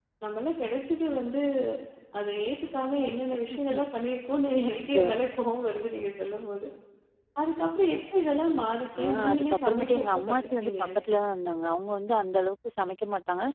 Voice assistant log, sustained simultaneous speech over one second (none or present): present